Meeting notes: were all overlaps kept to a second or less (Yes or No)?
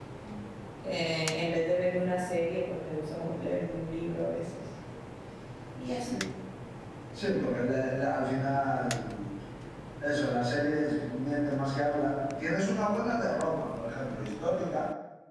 Yes